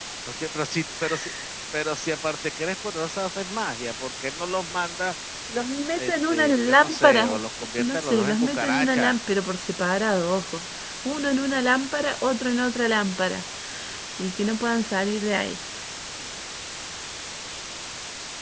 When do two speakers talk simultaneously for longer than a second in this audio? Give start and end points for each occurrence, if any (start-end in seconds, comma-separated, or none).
6.0-7.3, 7.8-9.2